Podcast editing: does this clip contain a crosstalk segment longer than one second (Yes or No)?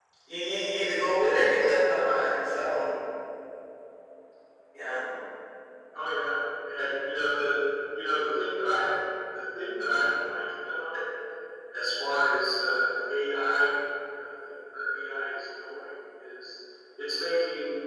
No